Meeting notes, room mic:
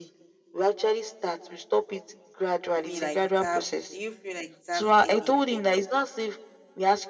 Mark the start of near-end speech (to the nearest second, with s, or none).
3 s